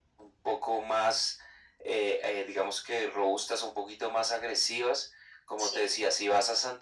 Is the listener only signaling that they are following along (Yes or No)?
Yes